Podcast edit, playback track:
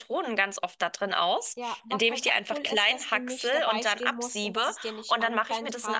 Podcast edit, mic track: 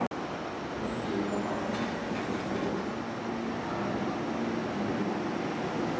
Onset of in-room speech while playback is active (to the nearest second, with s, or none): none